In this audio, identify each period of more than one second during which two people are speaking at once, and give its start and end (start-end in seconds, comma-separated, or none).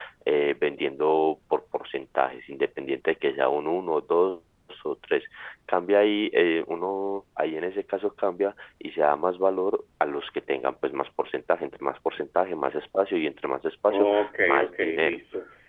13.9-15.2